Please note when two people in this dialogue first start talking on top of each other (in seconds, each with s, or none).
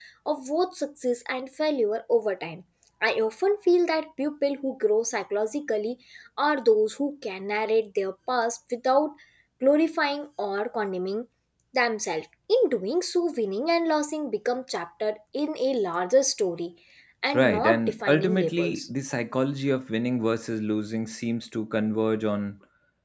17.3 s